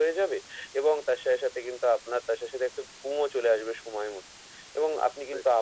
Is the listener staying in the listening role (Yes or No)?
Yes